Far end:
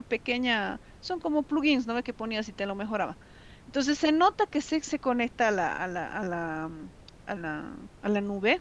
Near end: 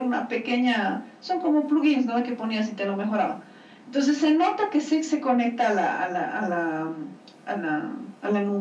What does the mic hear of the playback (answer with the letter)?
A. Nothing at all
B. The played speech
B